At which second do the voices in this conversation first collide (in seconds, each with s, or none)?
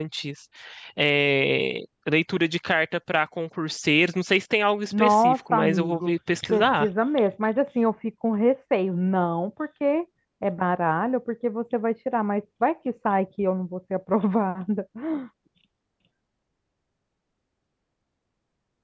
4.9 s